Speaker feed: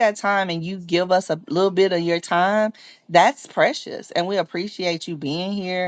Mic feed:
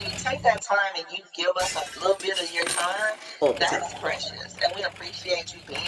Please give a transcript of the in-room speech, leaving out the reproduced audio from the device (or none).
all the time,